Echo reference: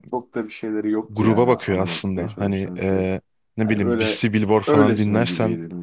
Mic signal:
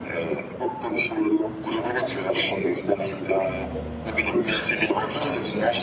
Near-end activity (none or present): none